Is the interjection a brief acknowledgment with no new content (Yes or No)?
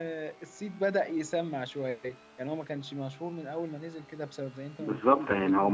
No